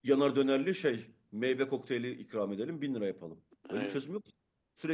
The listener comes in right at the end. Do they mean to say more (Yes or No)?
No